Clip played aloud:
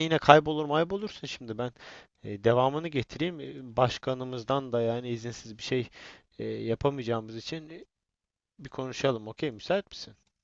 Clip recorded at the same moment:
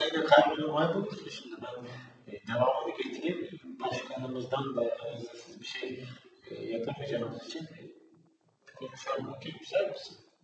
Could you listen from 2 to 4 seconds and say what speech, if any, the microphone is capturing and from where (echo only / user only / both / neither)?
echo only